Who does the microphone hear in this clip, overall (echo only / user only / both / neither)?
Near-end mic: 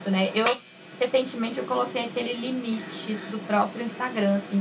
echo only